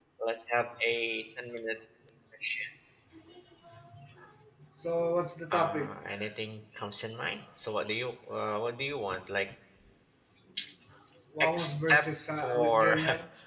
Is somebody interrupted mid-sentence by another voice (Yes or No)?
Yes